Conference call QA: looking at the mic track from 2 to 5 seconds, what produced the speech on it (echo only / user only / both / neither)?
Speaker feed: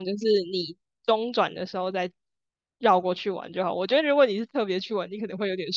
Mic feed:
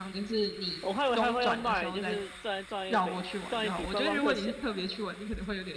both